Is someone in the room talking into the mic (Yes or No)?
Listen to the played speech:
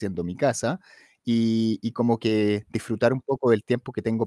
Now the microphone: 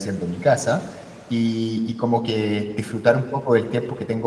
No